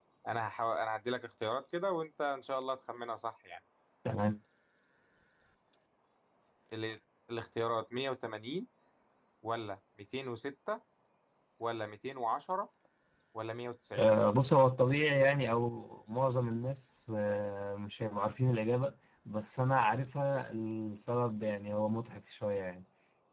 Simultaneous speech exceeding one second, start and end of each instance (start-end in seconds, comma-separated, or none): none